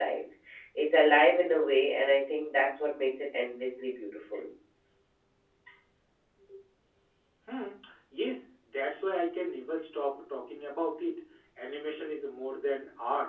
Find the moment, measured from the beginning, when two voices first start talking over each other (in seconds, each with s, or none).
none